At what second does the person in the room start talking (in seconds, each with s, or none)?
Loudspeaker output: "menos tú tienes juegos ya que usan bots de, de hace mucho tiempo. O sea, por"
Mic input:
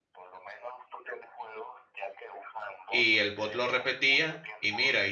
2.9 s